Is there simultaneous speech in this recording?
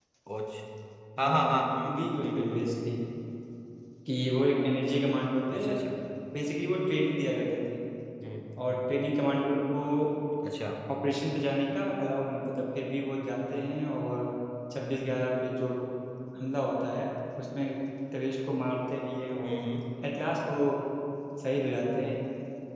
Yes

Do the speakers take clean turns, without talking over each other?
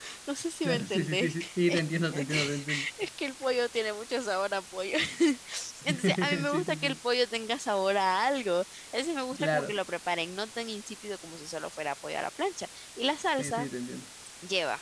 No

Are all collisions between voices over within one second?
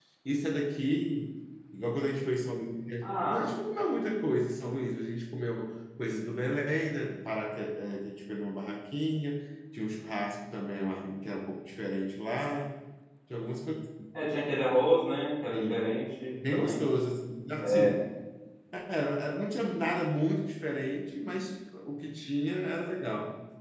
Yes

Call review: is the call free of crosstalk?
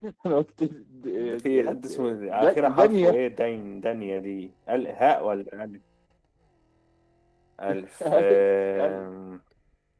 No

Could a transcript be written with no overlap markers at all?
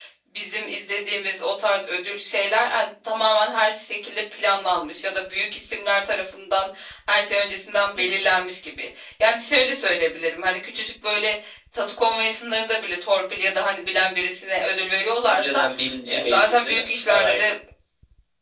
No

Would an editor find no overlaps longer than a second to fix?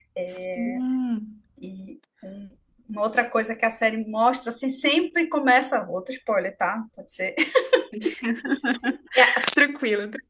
Yes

